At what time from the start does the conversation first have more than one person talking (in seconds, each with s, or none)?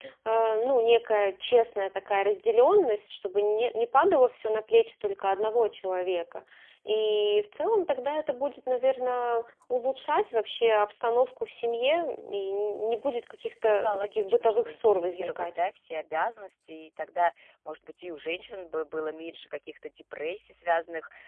13.6 s